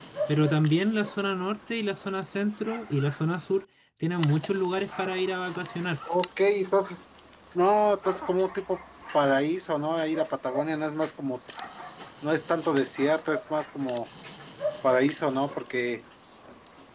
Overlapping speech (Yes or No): No